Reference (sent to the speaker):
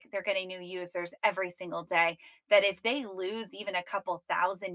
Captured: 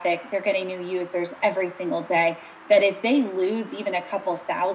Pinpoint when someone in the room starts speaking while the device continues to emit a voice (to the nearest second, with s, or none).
none